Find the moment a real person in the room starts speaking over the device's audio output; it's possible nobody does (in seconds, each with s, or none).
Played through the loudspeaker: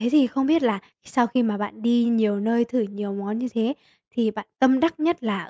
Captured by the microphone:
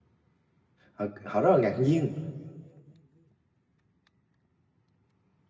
0.9 s